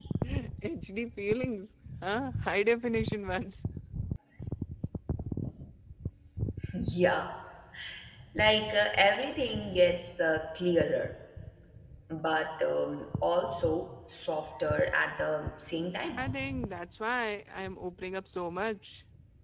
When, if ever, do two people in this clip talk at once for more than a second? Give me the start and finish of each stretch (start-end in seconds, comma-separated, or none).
none